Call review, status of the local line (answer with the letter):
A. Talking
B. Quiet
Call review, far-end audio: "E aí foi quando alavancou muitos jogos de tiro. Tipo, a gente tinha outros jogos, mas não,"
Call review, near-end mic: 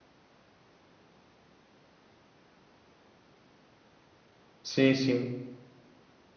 A